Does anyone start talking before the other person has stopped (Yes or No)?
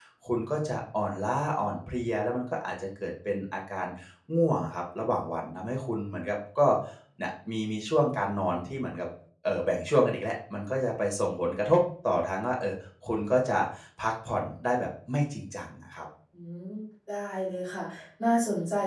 No